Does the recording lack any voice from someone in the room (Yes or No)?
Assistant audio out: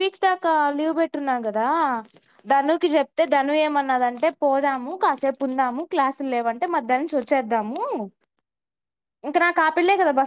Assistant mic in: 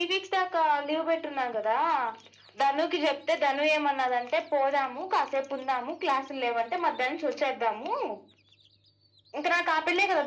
Yes